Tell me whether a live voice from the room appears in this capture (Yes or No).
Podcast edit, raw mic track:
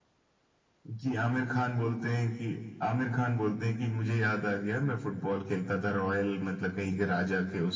No